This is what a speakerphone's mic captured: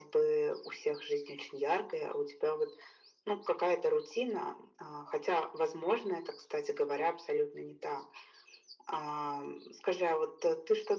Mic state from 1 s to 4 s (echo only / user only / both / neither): echo only